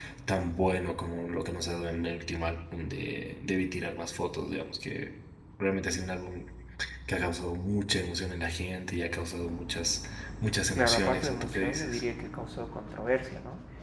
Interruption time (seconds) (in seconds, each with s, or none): 10.8 s